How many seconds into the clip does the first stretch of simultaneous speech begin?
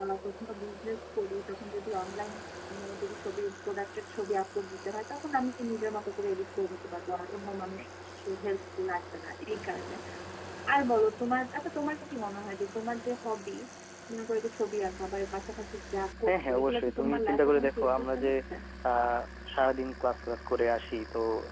16 s

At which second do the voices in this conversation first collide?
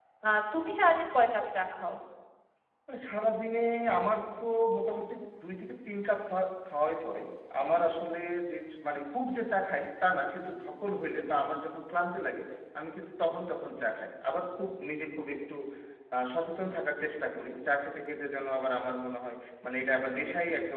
none

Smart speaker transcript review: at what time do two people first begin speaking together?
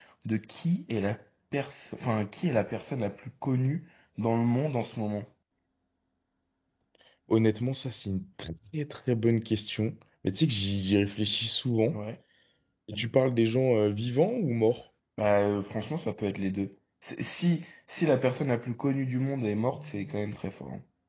none

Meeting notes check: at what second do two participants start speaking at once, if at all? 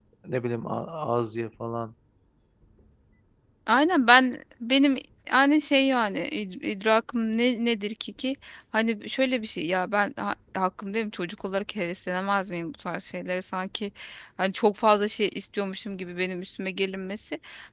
none

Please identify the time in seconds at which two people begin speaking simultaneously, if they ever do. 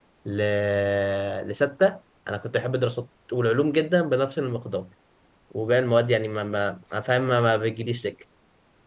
none

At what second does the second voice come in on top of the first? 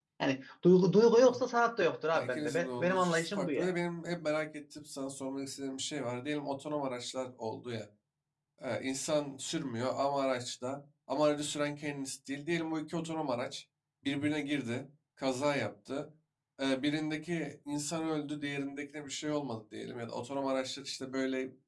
2 s

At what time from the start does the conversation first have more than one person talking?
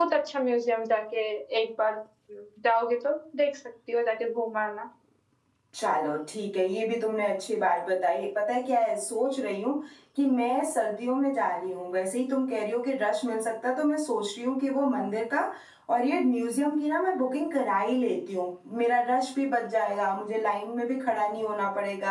none

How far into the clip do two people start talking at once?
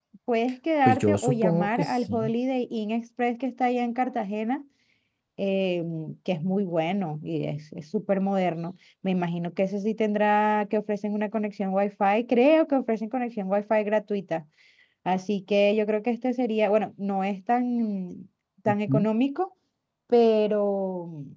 1 s

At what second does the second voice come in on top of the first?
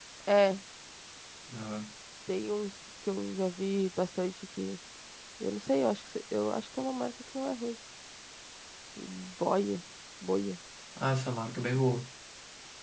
none

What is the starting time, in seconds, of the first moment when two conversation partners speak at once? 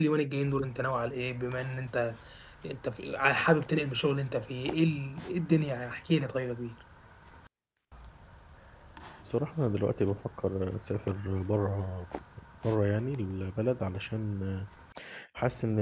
none

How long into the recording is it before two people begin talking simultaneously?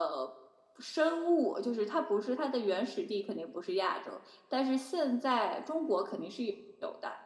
none

